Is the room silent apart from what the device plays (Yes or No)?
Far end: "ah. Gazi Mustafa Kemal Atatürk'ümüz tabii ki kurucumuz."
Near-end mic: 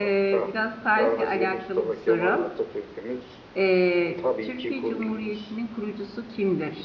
No